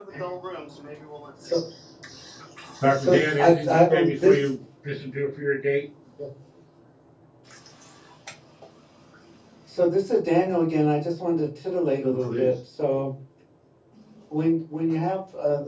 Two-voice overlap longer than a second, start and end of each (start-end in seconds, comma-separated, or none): 2.9-4.3